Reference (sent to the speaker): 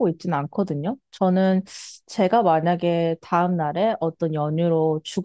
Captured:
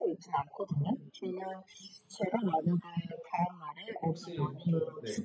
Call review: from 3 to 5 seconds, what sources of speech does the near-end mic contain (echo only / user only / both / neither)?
both